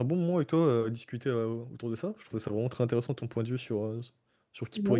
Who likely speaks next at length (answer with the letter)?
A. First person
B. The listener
A